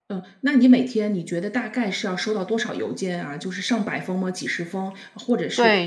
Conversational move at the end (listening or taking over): taking over